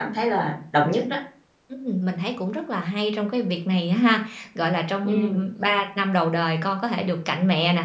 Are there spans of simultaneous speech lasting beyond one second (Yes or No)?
No